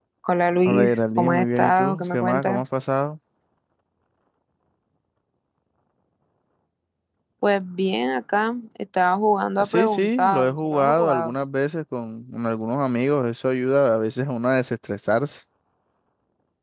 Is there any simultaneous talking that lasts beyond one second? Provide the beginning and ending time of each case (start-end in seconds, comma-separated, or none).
0.7-2.6, 9.7-11.3